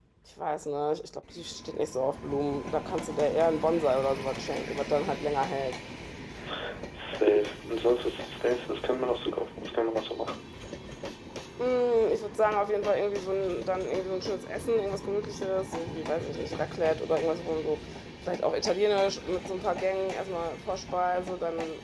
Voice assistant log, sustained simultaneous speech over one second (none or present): none